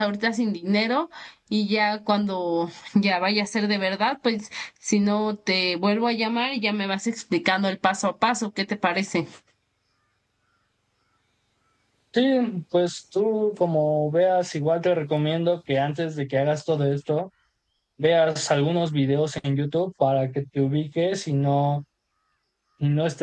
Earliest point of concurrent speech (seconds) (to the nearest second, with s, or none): none